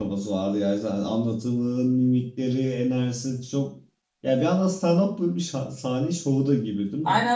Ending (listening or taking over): taking over